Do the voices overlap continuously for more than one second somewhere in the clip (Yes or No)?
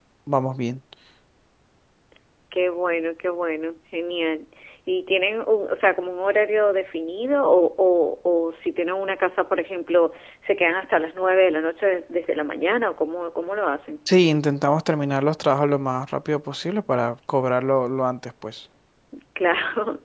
No